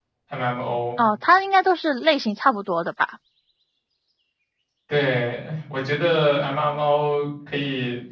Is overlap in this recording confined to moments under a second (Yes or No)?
Yes